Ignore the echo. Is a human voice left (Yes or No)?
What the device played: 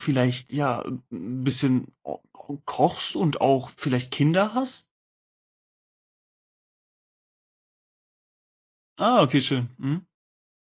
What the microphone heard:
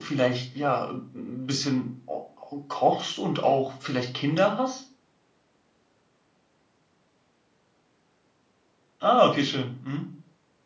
No